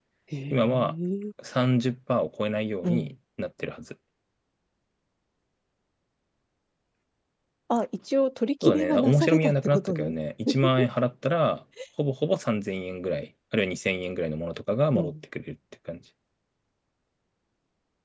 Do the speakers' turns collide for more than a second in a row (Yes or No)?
Yes